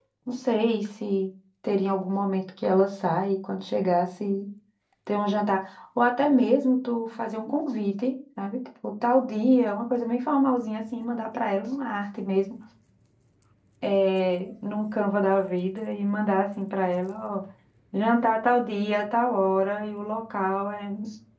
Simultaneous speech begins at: none

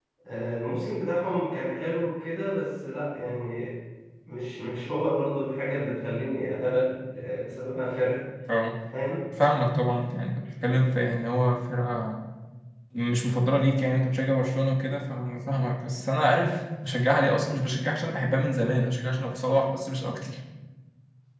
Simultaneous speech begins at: none

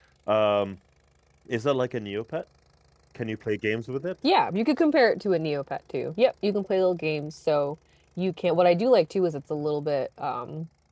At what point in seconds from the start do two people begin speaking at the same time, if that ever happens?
none

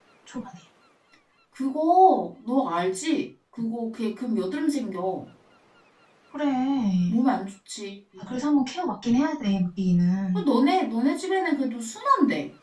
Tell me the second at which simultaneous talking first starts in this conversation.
none

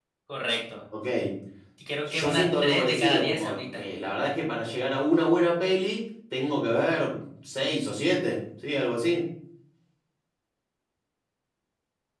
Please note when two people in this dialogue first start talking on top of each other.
2.1 s

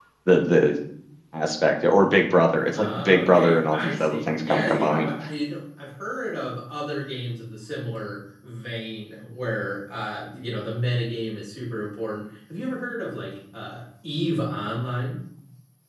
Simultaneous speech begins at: 2.5 s

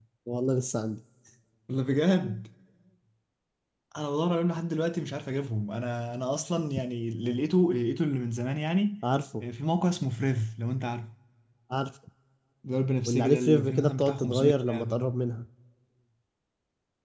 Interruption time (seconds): 13.1 s

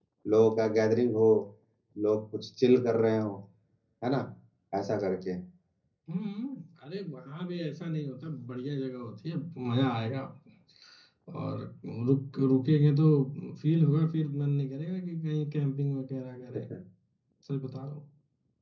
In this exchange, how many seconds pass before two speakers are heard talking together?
none

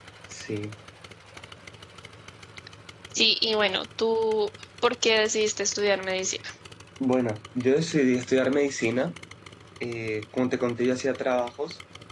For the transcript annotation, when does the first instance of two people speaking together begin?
none

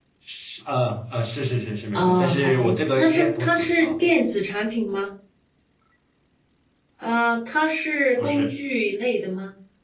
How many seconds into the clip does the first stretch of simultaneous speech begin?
1.9 s

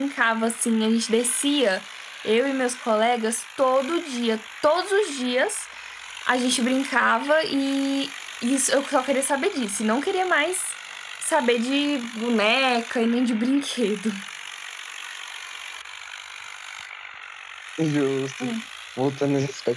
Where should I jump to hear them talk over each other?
none

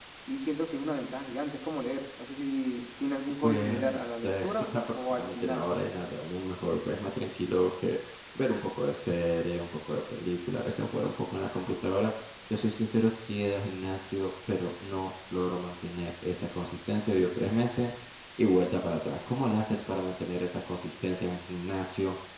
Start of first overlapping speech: 3.4 s

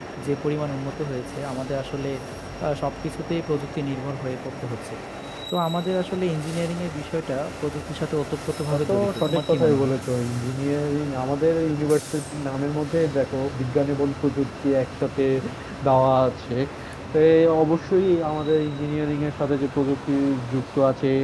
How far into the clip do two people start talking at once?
8.7 s

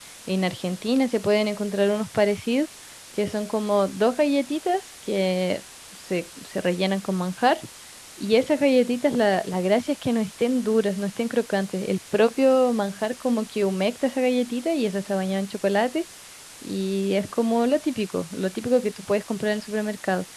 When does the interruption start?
none

